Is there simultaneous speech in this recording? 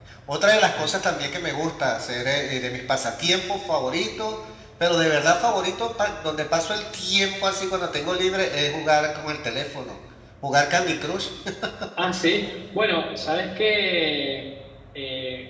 No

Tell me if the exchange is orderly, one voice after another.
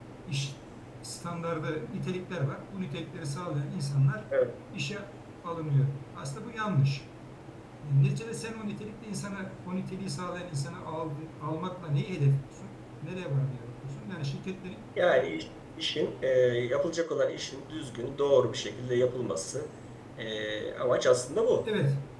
Yes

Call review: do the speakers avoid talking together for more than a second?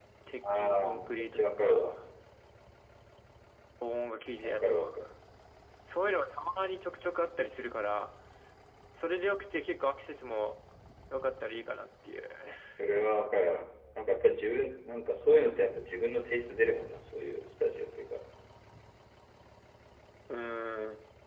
No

